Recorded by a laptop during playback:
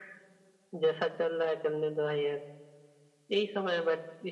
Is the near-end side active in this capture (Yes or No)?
No